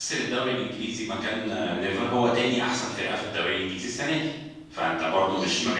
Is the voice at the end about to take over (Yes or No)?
No